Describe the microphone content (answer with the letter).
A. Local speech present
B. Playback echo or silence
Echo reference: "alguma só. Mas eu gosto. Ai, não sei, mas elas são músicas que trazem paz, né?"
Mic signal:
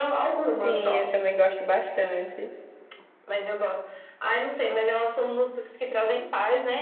A